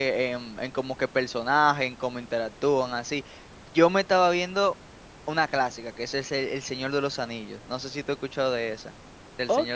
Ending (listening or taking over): taking over